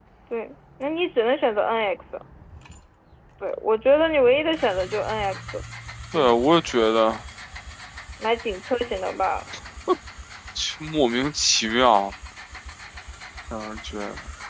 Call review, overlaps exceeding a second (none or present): none